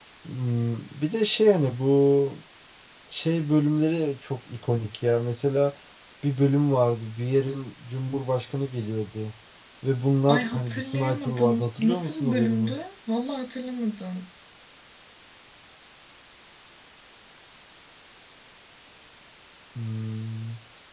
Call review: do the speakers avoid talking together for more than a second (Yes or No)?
No